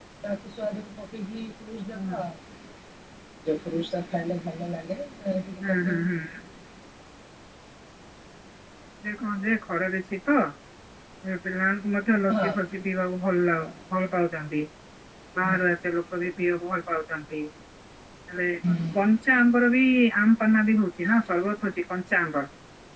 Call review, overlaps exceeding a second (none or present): none